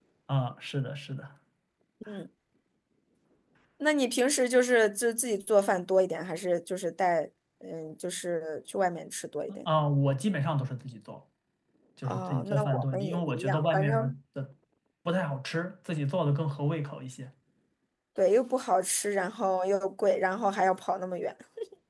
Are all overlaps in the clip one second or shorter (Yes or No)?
No